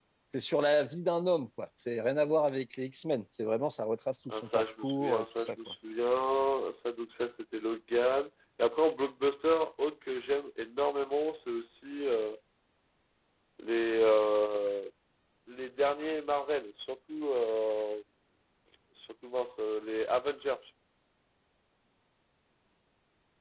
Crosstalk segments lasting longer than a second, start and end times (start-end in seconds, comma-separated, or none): 4.3-5.5